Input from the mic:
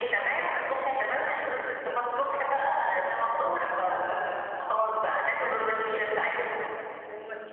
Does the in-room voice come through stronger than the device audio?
No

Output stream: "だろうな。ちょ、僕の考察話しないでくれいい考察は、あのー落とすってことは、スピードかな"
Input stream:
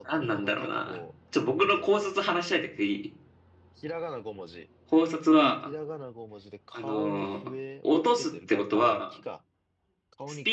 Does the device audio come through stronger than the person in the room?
Yes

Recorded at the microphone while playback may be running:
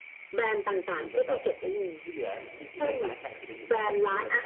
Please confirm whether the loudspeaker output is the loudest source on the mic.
Yes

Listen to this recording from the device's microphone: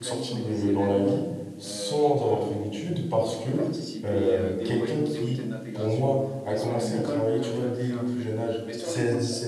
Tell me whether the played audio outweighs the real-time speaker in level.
No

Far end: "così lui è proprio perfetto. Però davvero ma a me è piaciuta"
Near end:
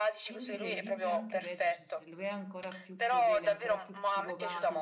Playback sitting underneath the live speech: No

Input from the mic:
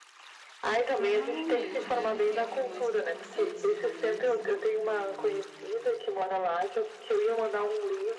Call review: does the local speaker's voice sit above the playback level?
No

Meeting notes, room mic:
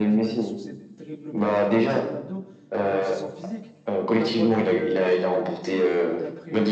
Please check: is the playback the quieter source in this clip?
No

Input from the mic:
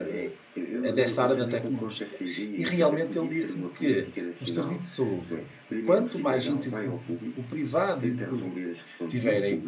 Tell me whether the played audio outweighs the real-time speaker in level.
No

